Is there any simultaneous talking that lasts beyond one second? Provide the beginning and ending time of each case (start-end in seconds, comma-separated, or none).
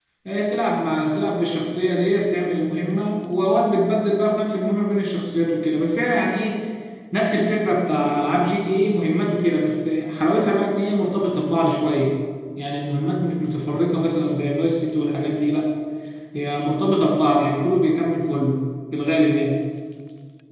none